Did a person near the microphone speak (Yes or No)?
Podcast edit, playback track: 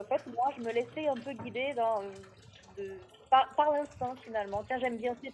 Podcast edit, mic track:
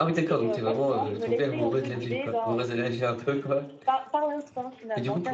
Yes